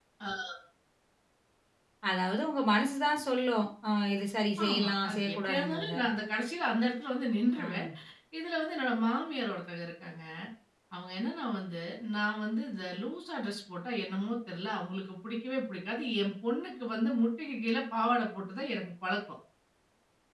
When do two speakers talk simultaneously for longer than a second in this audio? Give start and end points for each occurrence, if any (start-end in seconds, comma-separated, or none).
4.7-5.9